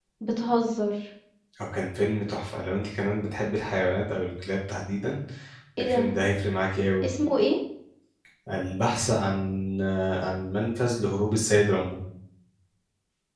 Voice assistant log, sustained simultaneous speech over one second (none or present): none